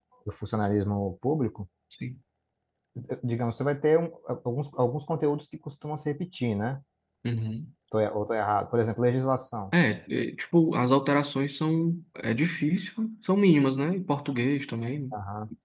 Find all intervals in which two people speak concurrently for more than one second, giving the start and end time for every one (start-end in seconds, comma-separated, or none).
none